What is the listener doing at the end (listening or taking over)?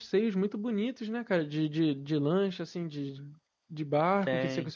listening